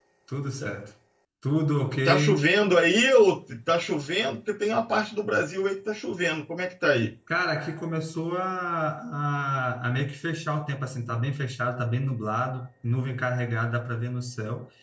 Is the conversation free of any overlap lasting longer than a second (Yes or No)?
Yes